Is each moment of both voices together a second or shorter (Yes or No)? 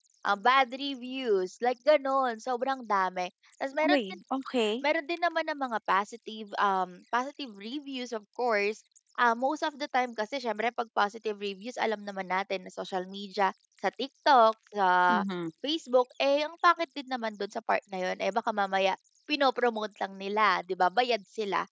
Yes